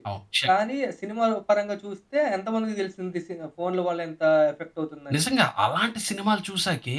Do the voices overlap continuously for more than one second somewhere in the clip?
No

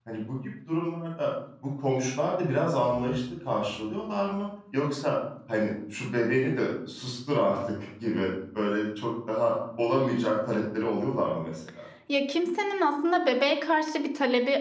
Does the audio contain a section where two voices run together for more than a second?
No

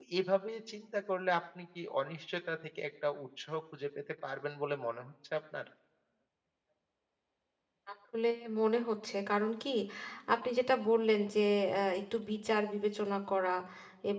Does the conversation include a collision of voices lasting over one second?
No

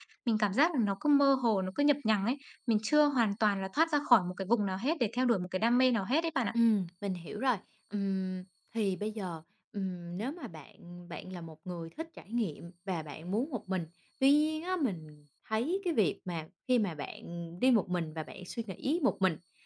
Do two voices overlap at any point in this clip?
No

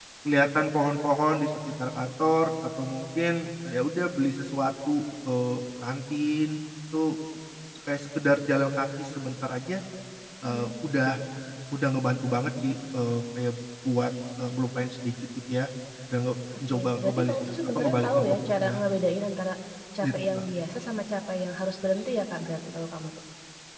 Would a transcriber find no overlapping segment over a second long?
No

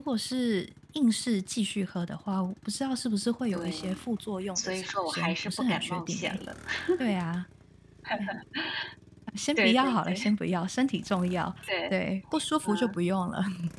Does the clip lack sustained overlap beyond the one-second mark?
No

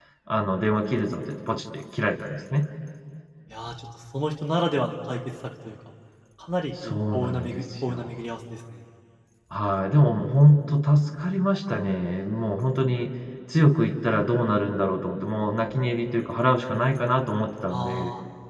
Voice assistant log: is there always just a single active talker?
No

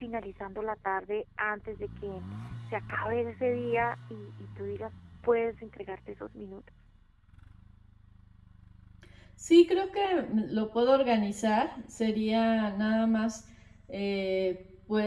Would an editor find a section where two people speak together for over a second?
No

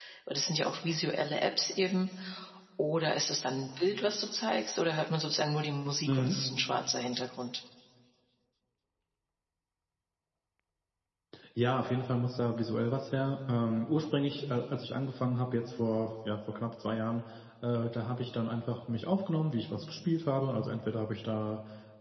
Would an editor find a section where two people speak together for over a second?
No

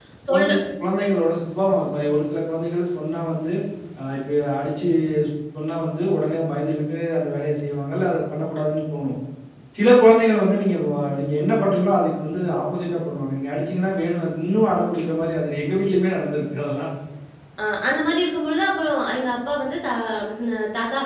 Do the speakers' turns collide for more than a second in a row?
No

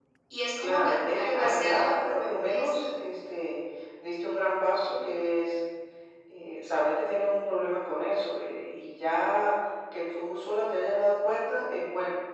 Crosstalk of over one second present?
Yes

